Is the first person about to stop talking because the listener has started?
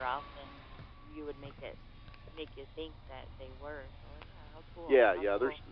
Yes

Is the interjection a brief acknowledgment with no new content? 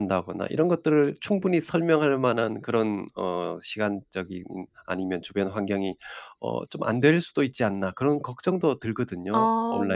No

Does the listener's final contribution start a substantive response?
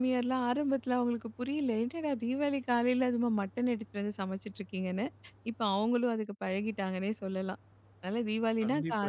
Yes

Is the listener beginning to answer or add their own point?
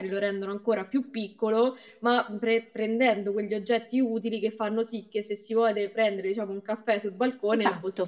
Yes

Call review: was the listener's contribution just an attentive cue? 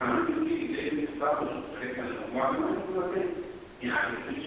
Yes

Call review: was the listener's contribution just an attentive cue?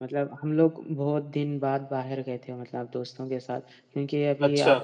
Yes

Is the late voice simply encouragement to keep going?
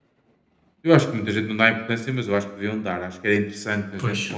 Yes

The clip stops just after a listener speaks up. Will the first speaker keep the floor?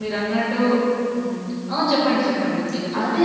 No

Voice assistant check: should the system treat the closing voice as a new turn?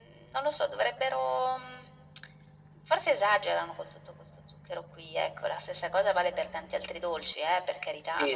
Yes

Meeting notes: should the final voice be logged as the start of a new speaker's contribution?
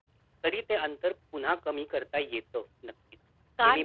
Yes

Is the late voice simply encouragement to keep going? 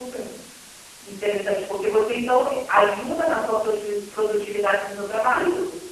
No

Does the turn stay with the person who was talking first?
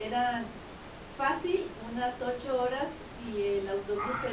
Yes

